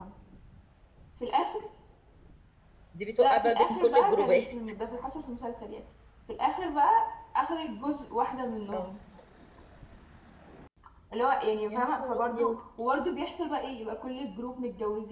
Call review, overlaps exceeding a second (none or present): present